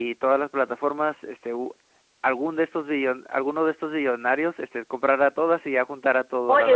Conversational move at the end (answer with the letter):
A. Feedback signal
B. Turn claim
B